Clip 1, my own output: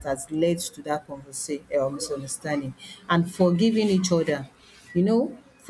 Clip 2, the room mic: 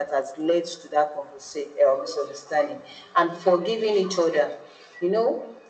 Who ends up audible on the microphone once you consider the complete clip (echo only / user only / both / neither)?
echo only